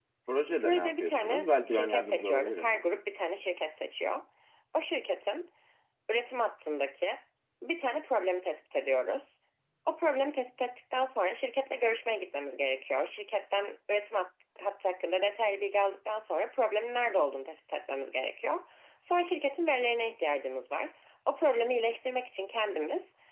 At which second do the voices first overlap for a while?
0.6 s

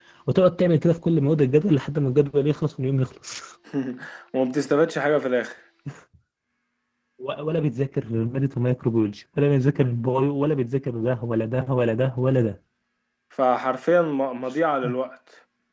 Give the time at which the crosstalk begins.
none

